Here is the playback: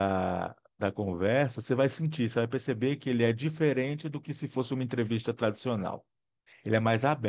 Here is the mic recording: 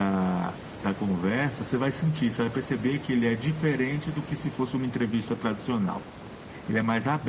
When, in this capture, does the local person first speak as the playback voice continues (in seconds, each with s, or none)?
none